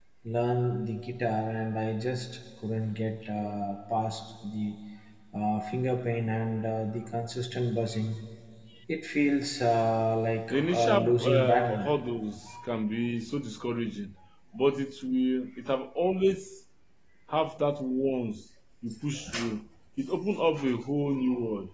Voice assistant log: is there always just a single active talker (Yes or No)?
No